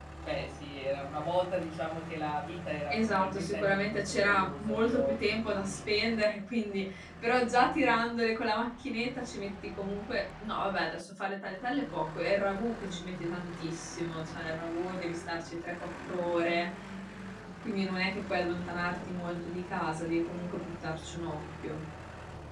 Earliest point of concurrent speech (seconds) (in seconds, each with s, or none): 2.9 s